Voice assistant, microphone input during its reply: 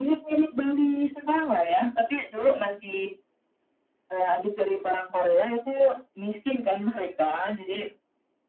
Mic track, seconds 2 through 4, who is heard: echo only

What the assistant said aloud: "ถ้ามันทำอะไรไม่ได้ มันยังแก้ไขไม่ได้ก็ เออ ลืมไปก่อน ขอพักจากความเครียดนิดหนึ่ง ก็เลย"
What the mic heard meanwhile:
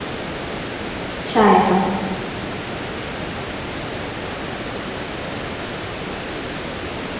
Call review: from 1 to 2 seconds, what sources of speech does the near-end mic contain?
user only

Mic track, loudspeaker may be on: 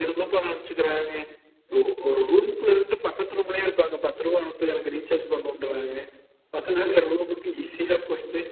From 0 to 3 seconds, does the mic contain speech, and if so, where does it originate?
echo only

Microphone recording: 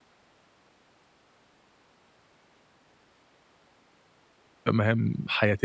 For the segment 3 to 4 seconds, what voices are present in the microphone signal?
neither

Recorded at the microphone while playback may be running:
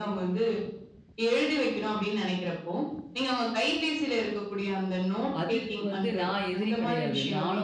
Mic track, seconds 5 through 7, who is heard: both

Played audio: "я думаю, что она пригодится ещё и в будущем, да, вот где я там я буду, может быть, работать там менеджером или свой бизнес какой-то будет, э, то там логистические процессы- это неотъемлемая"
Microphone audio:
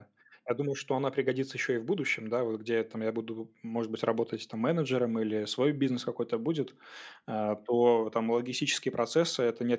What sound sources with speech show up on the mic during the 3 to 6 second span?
echo only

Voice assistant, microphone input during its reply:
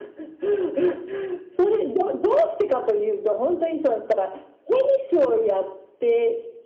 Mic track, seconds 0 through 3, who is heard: echo only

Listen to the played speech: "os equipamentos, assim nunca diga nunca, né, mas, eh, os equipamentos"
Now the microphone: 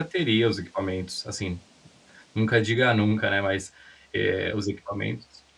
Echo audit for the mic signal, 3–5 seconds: echo only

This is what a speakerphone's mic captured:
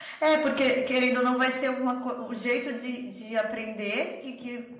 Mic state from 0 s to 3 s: user only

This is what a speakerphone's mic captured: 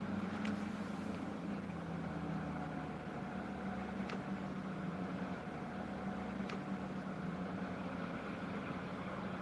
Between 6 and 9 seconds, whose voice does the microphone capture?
neither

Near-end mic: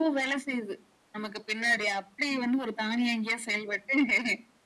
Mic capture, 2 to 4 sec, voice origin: echo only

